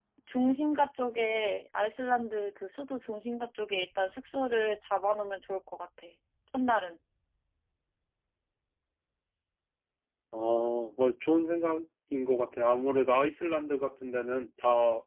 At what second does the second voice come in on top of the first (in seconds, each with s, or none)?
none